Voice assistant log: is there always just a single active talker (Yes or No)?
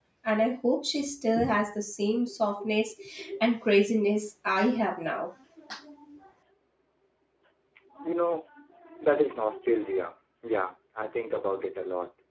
Yes